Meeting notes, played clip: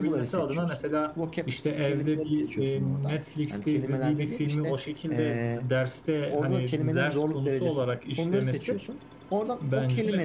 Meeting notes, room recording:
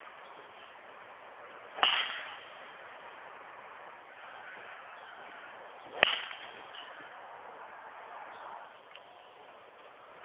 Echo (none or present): none